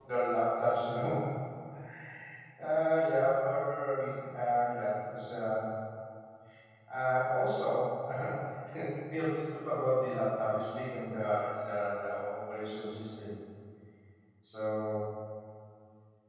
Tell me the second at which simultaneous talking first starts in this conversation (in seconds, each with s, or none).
none